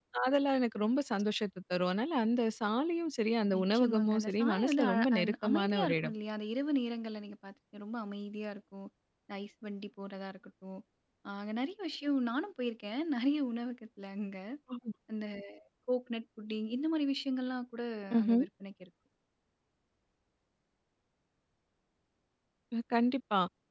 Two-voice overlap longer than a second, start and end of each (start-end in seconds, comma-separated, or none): 3.6-6.1